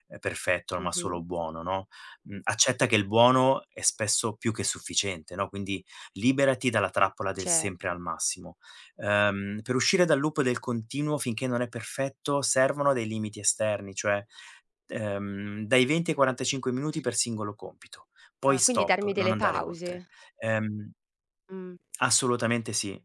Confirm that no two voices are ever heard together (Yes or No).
No